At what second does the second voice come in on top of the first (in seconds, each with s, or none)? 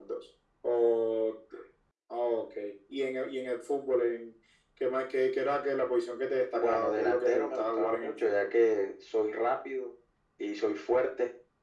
6.5 s